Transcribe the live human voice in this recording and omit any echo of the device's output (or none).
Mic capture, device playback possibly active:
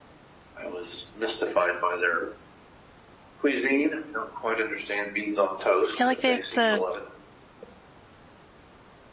I feel like they have the